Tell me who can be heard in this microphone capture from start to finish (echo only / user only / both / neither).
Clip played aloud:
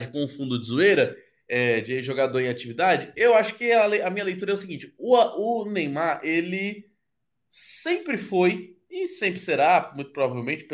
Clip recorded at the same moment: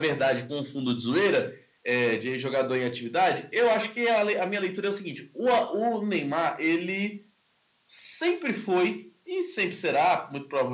echo only